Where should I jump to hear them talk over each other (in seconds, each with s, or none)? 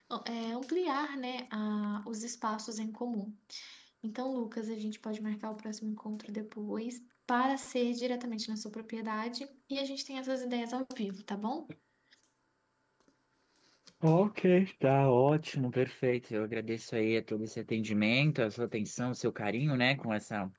none